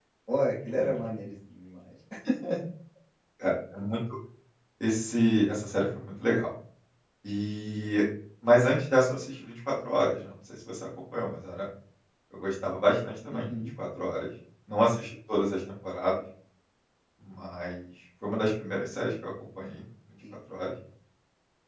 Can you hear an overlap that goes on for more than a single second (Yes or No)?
No